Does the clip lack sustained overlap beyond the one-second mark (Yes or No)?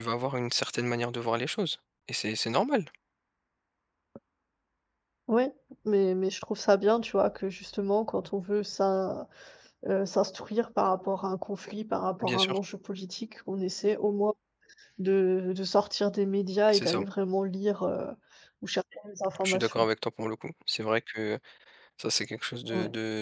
Yes